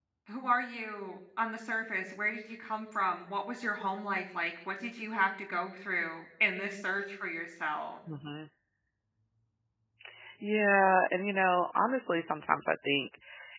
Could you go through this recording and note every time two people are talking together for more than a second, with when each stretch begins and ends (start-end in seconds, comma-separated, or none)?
none